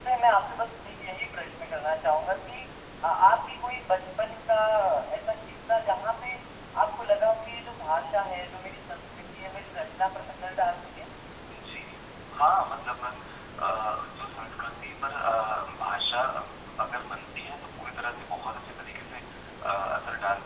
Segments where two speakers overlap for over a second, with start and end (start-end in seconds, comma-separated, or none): none